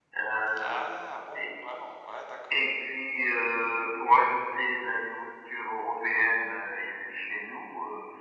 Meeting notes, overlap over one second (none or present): none